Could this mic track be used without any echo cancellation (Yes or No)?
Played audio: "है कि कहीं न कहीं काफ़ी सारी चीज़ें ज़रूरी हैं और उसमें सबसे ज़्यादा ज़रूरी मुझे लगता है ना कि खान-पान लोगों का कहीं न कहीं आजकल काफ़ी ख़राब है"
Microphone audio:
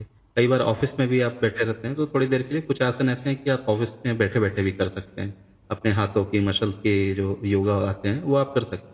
Yes